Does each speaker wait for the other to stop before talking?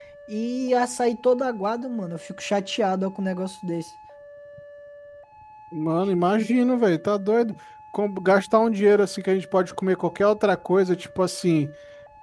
Yes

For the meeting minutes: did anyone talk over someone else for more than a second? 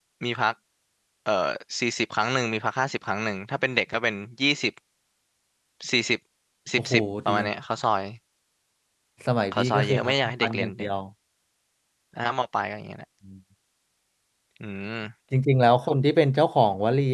Yes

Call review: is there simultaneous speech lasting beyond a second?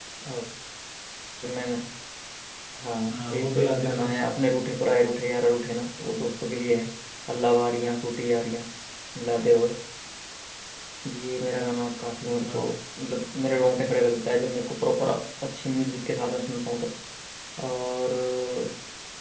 Yes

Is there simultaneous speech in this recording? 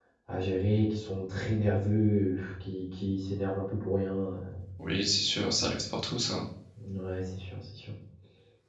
No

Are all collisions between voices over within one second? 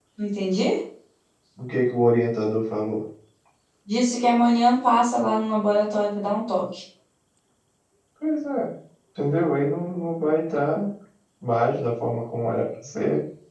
Yes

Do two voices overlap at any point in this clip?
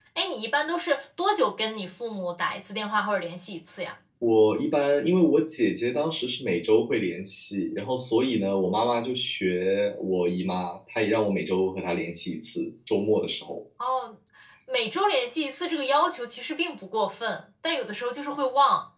No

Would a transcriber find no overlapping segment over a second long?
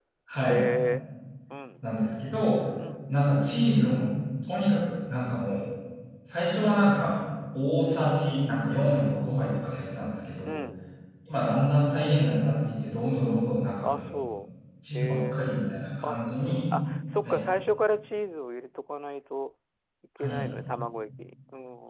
No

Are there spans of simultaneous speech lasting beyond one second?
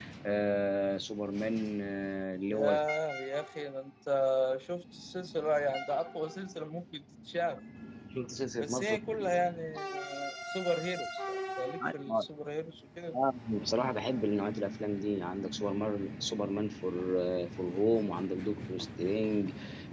No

